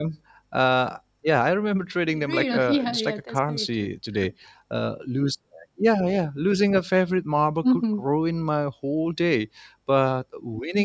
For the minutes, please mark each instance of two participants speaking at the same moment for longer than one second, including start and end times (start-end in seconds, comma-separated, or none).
2.2-3.9